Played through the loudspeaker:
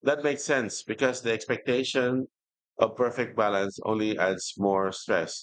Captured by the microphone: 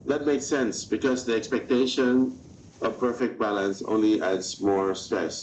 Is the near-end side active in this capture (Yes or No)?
No